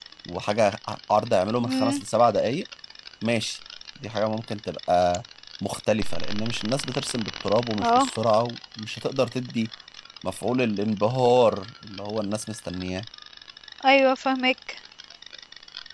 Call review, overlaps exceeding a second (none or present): none